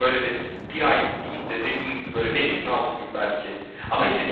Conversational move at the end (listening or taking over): taking over